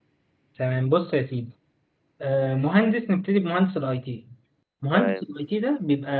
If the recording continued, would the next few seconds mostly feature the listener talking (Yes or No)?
No